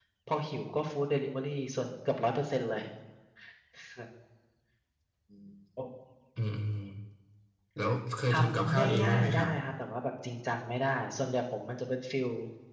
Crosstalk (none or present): present